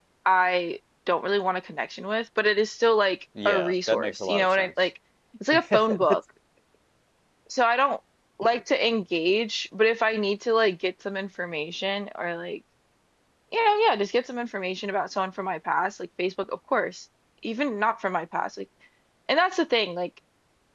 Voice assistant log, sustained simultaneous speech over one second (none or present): present